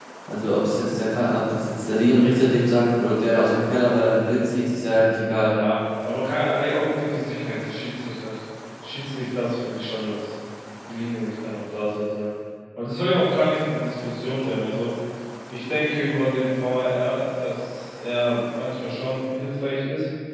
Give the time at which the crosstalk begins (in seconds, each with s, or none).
none